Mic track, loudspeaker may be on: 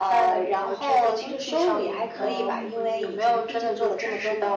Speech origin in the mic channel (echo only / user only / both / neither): both